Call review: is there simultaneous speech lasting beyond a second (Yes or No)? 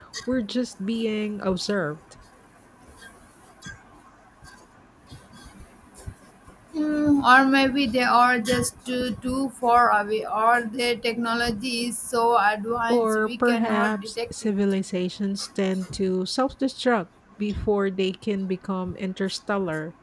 Yes